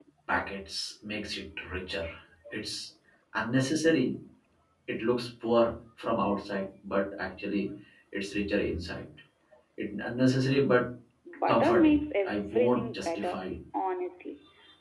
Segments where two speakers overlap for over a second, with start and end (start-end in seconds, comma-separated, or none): 11.5-13.4